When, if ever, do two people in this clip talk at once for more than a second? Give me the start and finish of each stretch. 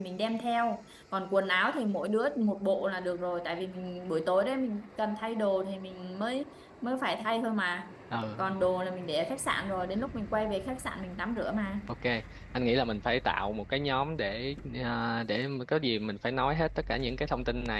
none

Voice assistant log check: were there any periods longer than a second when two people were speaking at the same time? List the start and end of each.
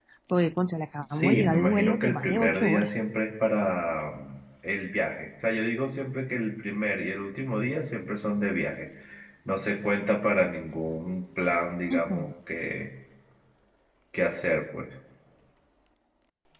1.1-2.9

